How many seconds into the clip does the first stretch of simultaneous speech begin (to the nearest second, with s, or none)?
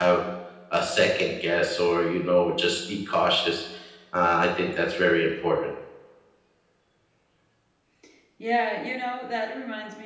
none